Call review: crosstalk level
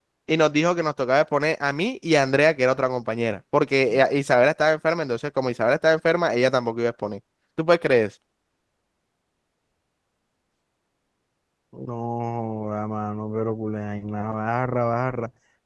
none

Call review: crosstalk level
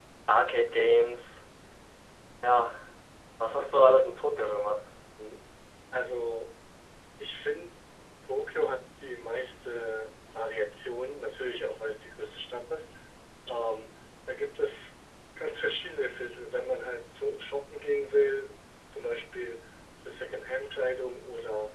none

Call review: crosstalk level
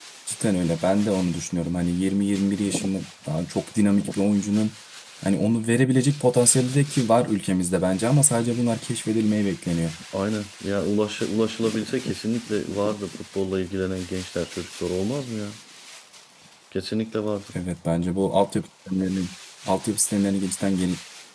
none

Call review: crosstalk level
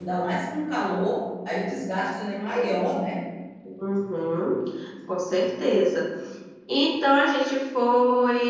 none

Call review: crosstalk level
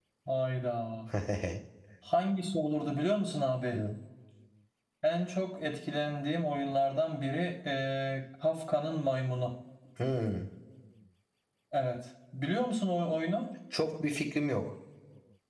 none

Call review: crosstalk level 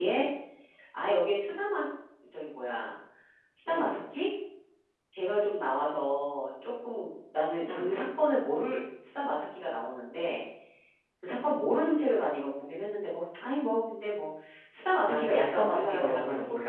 present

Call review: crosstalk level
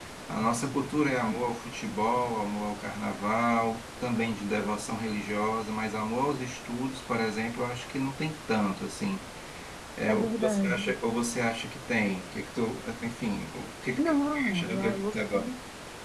present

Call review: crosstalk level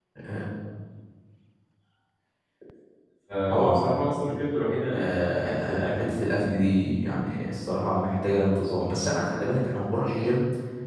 present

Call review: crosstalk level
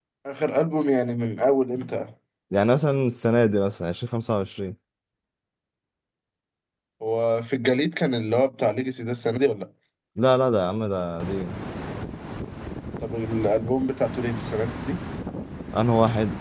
none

